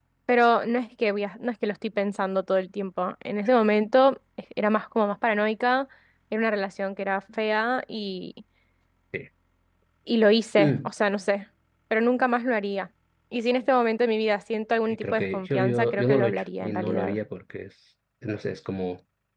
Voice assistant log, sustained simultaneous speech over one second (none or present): present